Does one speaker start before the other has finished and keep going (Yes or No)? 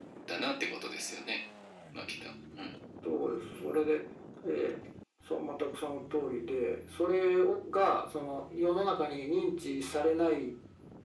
No